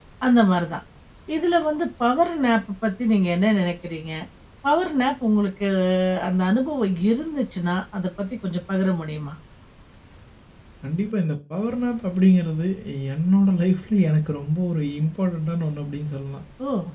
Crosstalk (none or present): none